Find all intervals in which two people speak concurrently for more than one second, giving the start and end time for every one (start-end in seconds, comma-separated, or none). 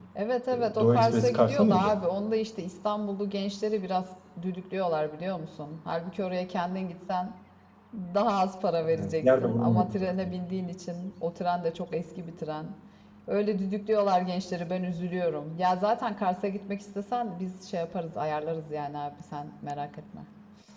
0.5-2.0, 9.0-10.3